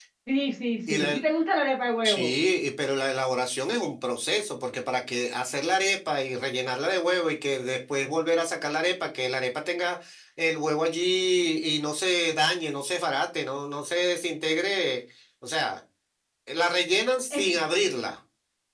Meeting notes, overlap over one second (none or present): none